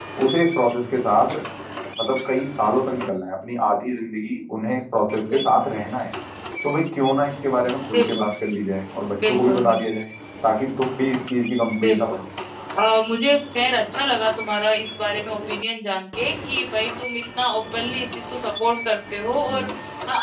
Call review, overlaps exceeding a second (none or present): none